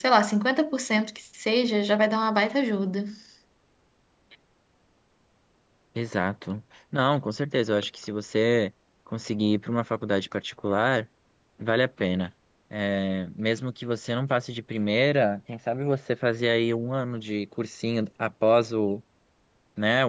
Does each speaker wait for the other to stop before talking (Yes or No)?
Yes